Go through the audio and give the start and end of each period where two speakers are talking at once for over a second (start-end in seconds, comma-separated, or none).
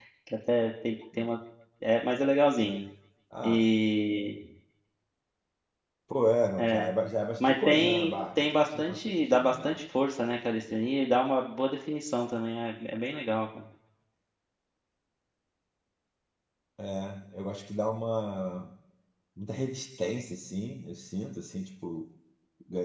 7.4-9.8